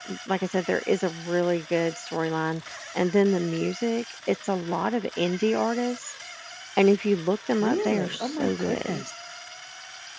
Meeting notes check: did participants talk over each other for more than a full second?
Yes, from 7.6 s

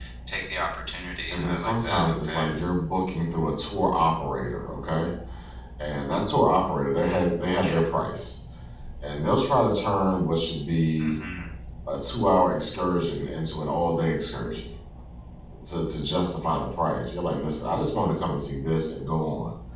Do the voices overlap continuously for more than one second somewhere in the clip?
Yes, from 1.3 s

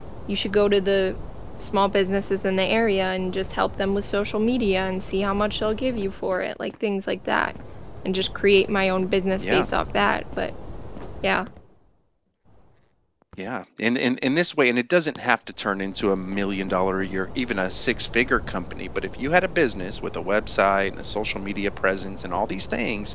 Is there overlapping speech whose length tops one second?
No

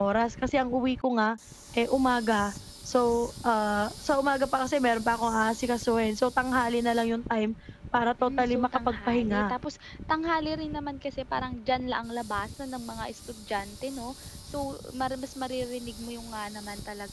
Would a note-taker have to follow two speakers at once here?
Yes, from 8.2 s

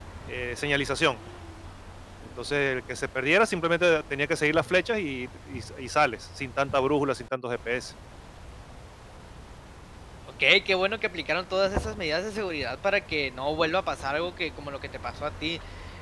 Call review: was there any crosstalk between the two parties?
No

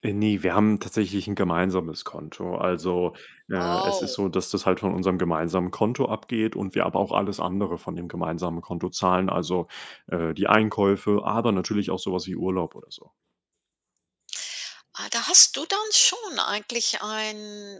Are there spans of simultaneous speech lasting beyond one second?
No

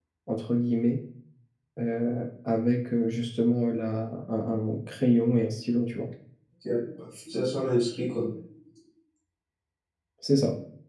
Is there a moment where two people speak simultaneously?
No

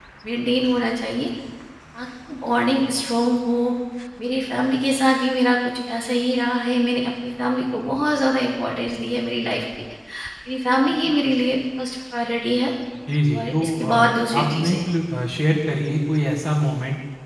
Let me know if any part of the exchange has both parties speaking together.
Yes, from 13.3 s

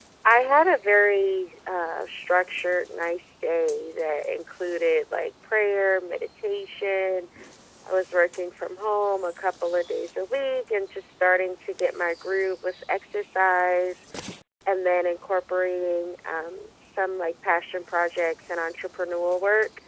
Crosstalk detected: No

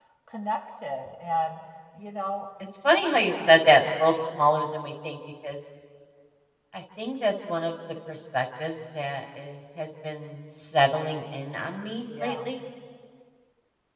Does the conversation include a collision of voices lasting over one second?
No

